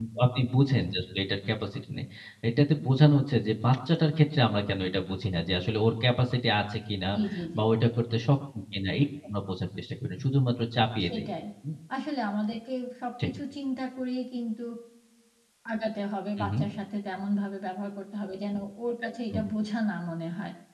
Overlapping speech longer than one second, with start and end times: none

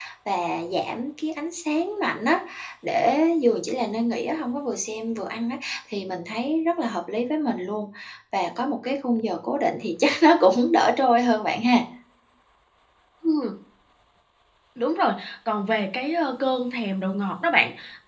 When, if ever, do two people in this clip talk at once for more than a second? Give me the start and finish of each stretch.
none

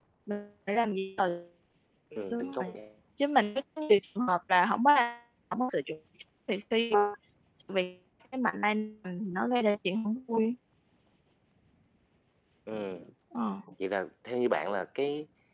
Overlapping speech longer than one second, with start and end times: none

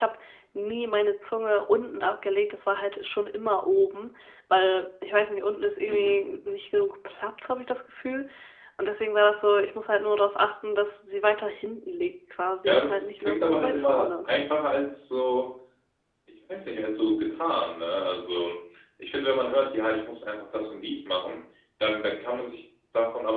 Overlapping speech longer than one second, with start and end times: 12.6-14.3

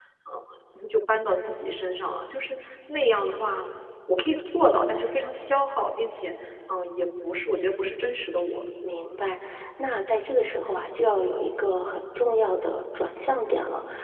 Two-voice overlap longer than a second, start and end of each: none

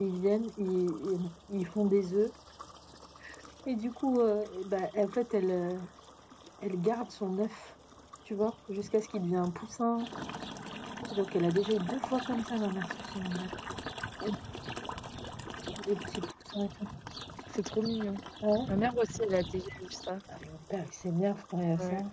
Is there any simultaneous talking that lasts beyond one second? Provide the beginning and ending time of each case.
none

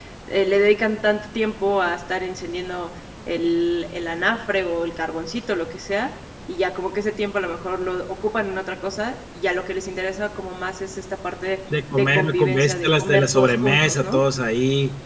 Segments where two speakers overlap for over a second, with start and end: 11.9-14.2

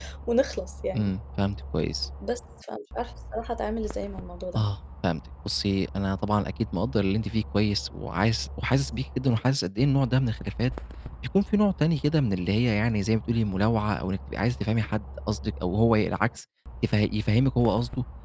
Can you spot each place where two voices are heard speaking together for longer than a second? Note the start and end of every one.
none

